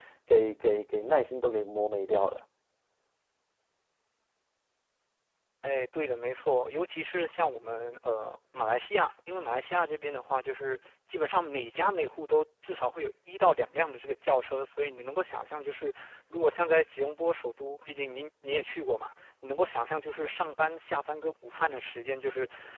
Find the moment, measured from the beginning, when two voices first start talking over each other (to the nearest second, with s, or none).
none